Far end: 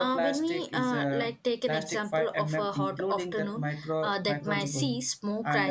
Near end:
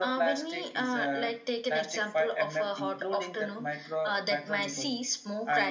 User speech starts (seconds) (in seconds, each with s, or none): none